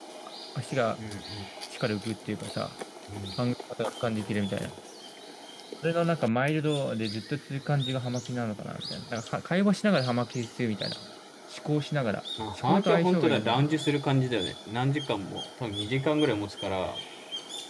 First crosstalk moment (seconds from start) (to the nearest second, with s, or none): 12 s